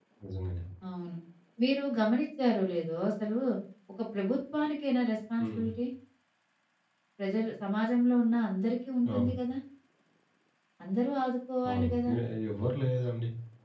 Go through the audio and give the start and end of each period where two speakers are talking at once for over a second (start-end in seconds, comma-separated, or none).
none